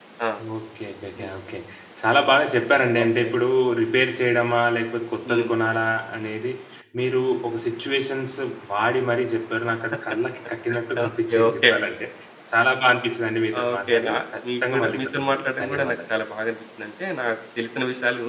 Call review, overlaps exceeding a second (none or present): present